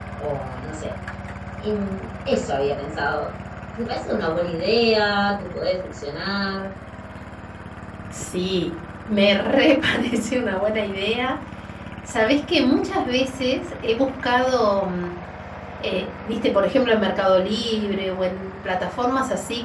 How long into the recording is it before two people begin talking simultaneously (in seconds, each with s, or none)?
none